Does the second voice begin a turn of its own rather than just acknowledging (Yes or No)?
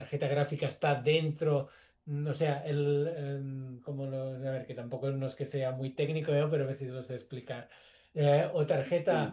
No